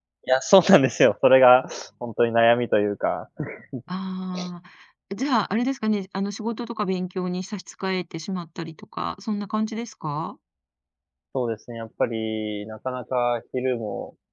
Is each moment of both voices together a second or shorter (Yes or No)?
Yes